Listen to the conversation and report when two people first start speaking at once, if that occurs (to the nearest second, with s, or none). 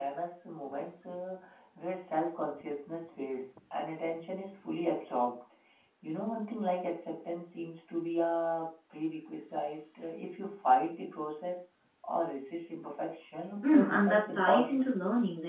14 s